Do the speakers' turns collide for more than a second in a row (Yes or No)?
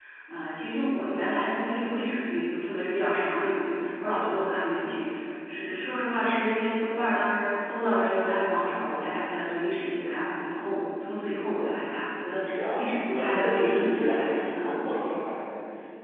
Yes